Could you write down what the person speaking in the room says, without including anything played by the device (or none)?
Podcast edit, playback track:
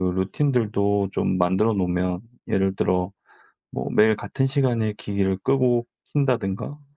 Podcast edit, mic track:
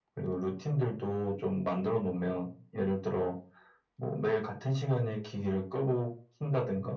none